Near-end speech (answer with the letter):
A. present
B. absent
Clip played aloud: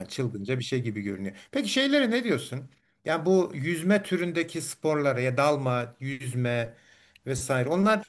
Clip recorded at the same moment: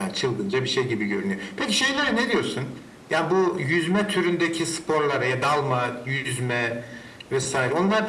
B